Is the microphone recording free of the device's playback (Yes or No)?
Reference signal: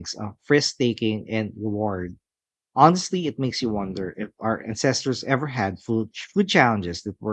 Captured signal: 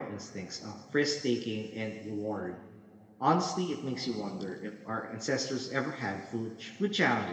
No